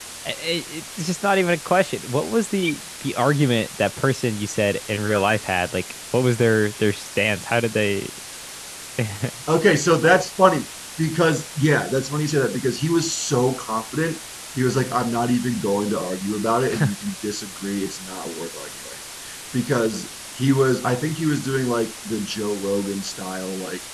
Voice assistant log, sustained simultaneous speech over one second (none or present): none